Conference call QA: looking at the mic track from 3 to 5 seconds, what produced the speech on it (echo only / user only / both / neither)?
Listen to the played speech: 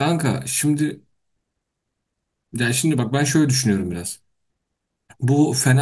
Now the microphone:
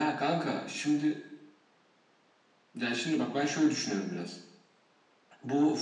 echo only